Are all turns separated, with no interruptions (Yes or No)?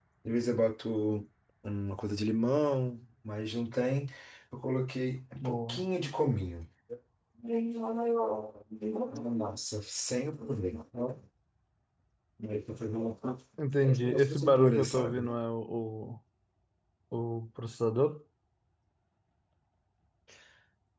No